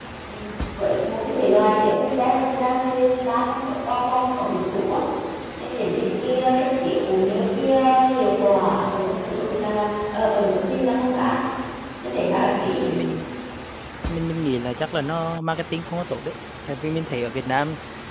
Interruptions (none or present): none